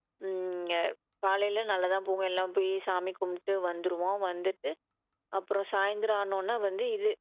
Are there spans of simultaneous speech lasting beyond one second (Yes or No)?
No